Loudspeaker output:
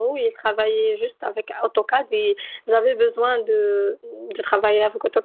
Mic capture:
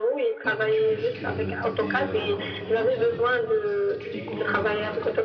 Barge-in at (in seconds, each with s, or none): 0.5 s